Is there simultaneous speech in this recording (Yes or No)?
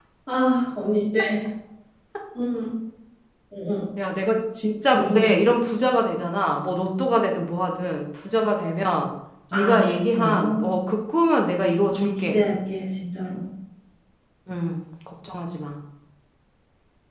Yes